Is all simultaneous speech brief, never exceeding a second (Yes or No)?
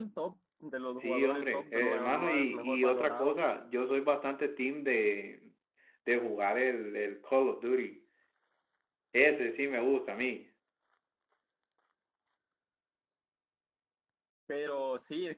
No